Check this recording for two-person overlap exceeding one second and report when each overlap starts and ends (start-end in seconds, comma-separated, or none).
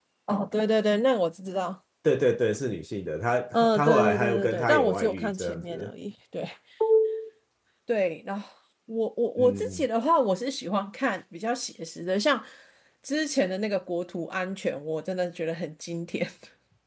3.5-5.9